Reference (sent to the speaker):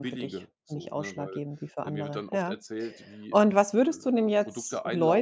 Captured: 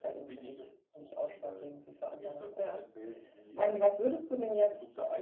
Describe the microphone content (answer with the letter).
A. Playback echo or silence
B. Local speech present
A